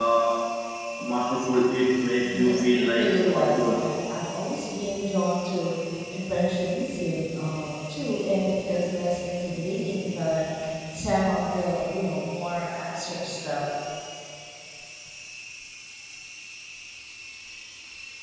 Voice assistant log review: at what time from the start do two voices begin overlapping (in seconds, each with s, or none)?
2.2 s